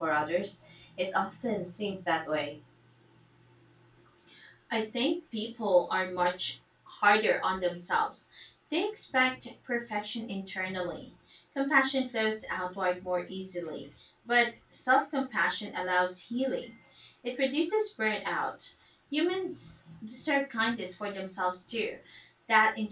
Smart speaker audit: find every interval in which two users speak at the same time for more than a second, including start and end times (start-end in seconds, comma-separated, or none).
none